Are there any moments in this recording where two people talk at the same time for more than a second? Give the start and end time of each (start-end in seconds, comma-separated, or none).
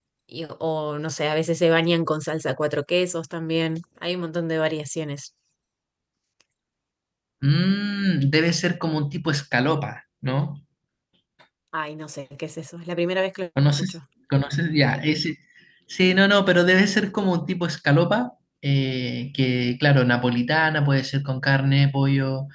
none